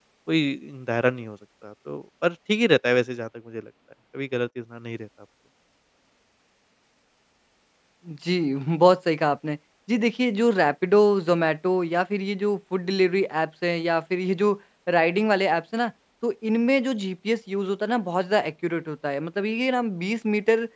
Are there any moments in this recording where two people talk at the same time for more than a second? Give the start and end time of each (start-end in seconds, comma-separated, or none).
none